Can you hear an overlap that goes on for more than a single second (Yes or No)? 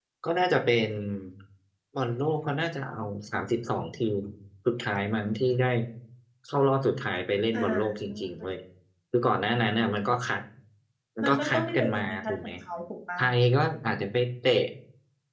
Yes